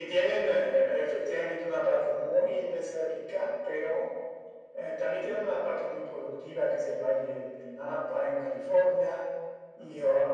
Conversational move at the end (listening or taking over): listening